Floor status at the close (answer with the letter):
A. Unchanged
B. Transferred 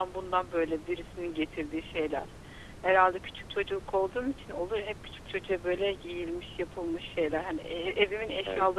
A